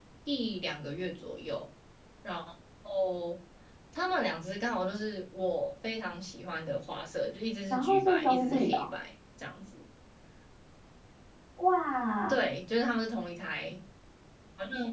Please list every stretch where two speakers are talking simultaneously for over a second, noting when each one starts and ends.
7.7-8.9

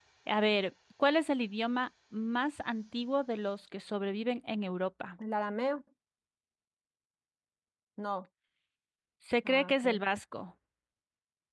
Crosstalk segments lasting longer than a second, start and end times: none

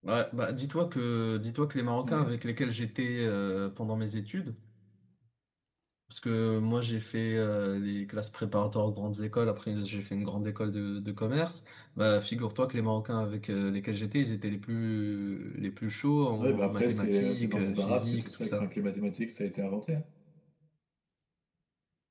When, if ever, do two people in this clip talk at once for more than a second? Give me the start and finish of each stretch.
16.4-18.7

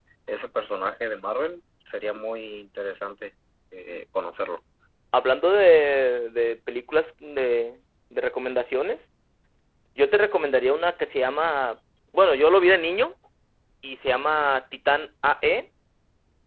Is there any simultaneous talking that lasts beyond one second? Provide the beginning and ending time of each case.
none

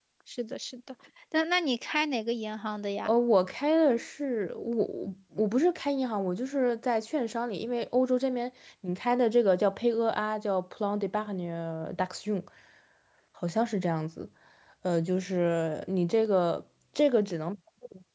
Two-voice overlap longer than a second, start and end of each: none

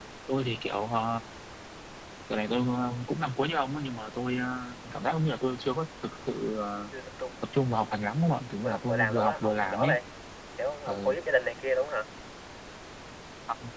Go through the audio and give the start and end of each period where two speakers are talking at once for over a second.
8.6-10.0

